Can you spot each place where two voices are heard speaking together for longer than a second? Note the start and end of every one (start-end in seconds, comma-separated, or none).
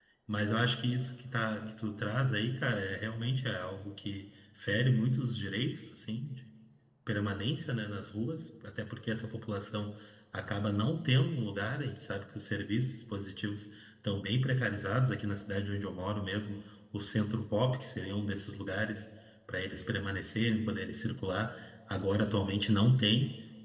none